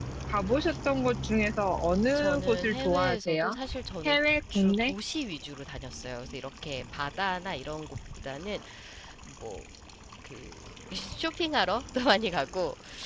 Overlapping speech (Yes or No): Yes